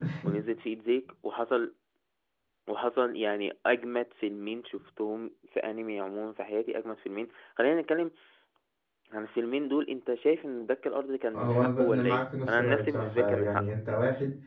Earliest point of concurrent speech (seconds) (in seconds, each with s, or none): 11.3 s